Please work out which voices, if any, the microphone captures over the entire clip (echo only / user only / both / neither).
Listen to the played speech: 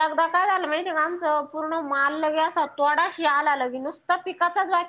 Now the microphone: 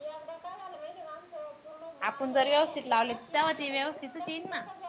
both